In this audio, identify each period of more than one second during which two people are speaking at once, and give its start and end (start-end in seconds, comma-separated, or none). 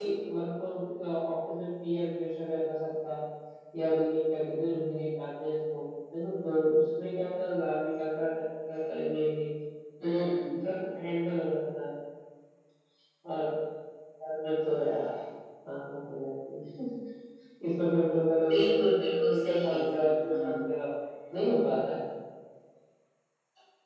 18.5-20.6